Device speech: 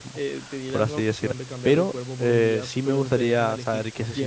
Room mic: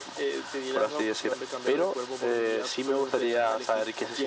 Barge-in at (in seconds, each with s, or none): none